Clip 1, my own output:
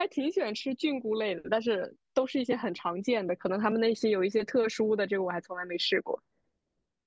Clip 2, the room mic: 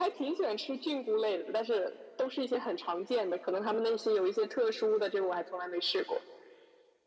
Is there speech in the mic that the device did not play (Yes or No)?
No